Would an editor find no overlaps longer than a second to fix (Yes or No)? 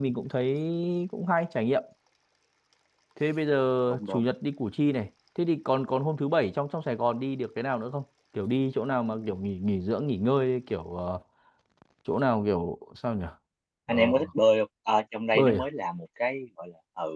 Yes